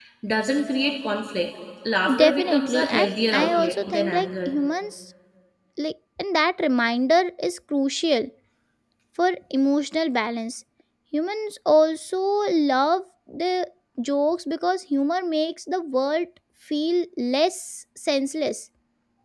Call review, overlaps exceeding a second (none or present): present